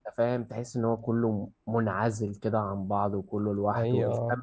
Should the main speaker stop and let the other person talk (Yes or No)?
No